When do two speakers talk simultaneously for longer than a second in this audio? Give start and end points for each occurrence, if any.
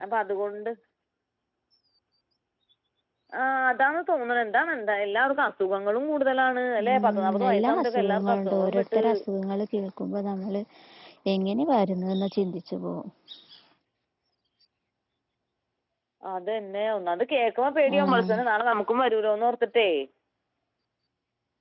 6.9-9.0

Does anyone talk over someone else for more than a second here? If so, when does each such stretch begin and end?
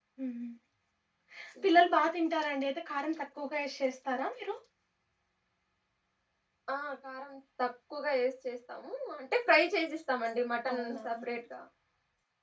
none

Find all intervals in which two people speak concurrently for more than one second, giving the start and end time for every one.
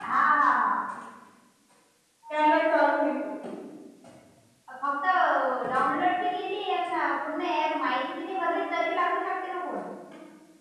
none

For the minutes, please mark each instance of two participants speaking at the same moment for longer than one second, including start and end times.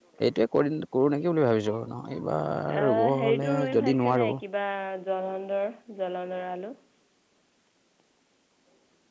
2.8-4.3

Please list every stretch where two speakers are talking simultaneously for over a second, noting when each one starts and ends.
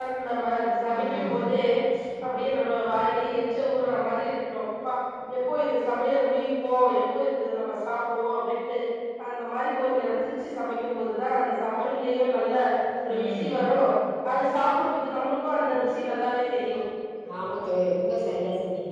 none

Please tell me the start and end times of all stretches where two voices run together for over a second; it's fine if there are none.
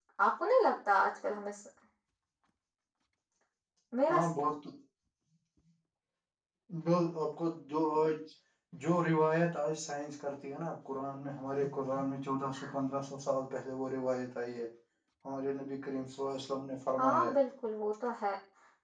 none

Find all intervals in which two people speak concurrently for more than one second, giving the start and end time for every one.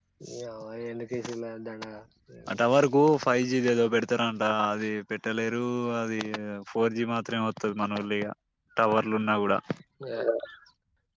none

